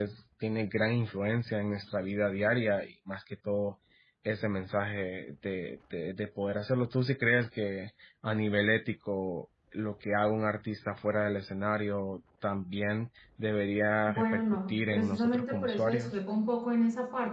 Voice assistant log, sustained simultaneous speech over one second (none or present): present